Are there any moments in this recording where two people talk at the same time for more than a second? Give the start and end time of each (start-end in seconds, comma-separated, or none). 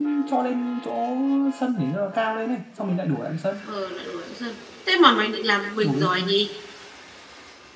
none